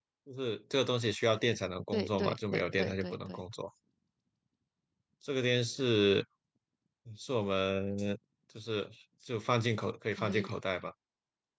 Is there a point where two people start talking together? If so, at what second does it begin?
1.9 s

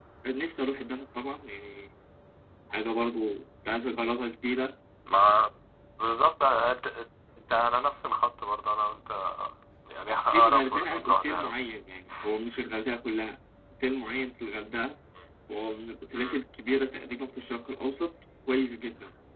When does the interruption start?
10.3 s

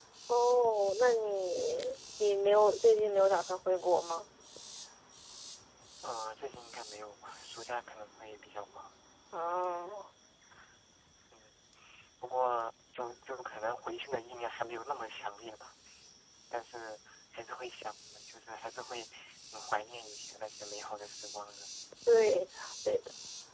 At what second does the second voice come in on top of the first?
none

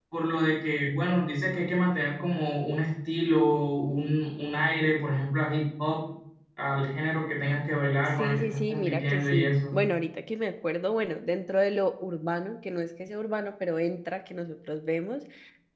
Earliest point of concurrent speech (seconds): 8.2 s

